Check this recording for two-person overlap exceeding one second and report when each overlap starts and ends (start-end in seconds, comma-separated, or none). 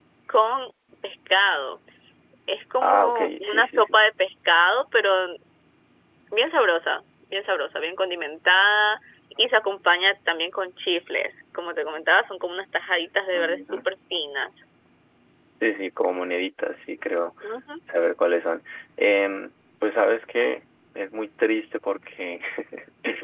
2.8-4.0